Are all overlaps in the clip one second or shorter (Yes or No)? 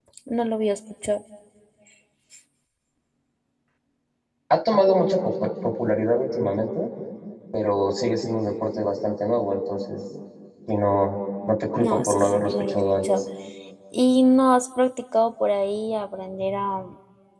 No